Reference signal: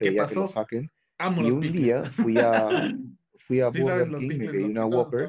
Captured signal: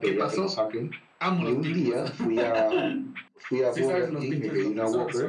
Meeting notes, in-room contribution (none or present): none